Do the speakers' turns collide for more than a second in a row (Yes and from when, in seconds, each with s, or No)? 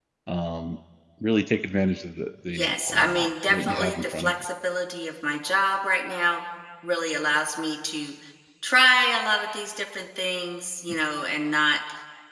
Yes, from 2.5 s